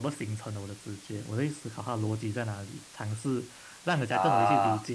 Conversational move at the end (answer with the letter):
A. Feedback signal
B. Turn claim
A